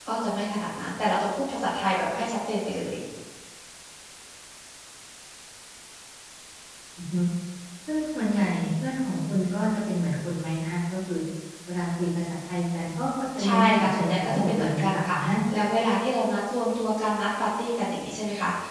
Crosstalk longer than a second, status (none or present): present